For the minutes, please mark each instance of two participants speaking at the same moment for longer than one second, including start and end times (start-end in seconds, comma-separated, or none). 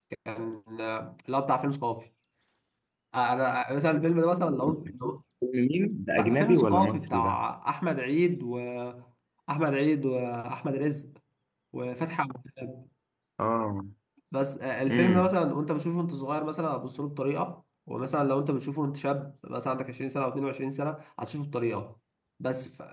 6.2-7.4